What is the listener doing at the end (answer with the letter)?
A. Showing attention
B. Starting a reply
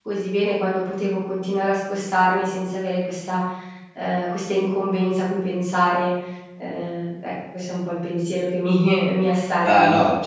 B